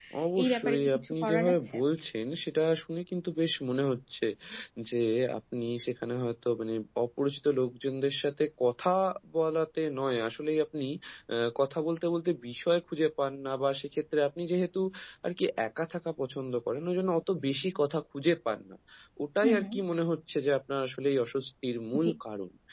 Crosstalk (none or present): present